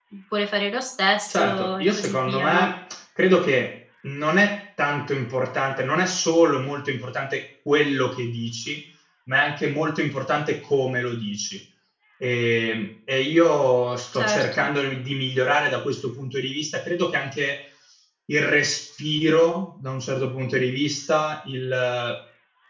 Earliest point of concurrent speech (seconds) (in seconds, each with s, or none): 1.3 s